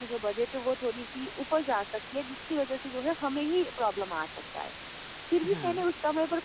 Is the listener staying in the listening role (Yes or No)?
Yes